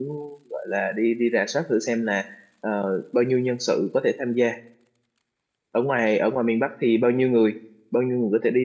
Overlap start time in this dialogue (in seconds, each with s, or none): none